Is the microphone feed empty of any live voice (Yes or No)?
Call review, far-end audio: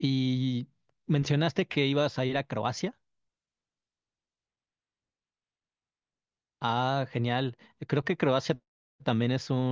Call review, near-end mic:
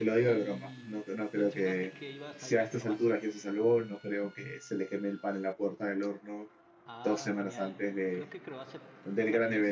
No